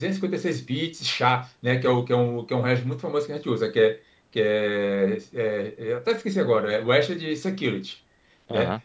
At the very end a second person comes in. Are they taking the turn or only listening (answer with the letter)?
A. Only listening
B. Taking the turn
A